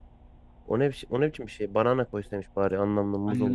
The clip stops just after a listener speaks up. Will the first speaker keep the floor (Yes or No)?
No